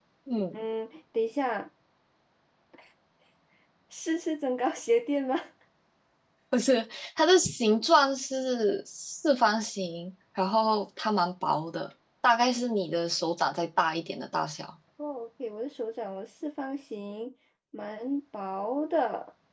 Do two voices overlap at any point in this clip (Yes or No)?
No